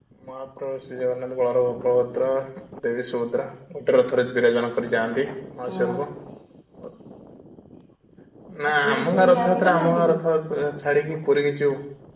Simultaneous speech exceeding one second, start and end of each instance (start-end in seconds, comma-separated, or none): 8.8-10.1